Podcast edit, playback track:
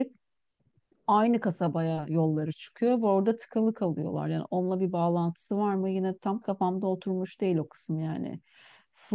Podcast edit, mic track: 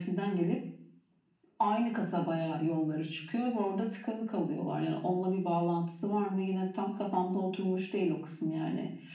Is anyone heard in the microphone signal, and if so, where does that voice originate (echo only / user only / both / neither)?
echo only